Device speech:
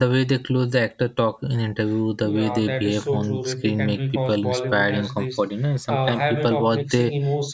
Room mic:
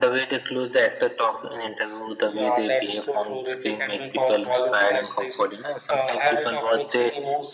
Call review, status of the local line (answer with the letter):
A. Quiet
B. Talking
A